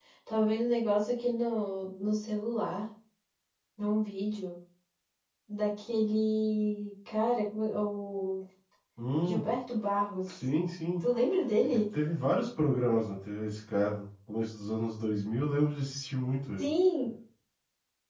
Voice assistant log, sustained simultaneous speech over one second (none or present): none